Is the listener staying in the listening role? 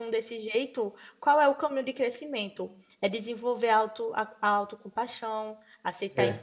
Yes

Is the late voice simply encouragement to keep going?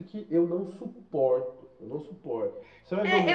No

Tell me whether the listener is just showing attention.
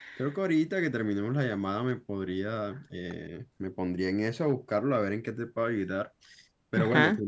Yes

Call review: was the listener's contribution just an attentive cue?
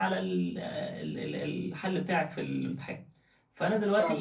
Yes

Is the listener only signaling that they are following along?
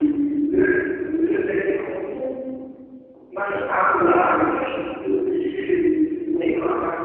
Yes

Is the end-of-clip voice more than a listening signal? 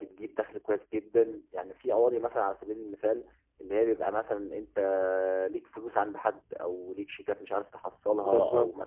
No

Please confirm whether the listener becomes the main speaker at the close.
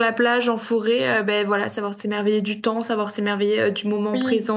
Yes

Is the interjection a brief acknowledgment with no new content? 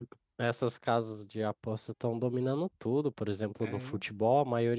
Yes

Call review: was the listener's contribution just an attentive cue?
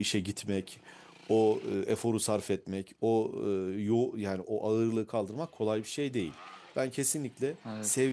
Yes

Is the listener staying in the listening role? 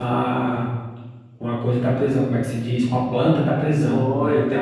No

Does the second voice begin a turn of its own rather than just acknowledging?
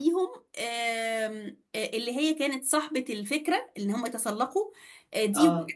No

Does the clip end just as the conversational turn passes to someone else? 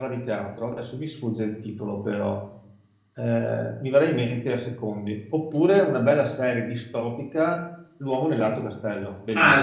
Yes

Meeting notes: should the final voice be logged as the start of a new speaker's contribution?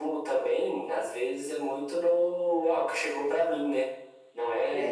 No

